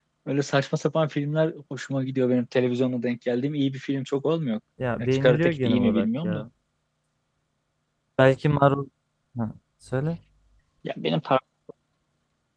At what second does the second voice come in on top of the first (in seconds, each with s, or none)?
5.1 s